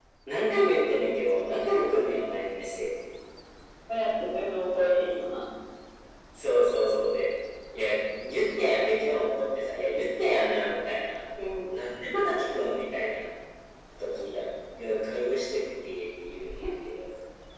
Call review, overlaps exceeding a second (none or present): none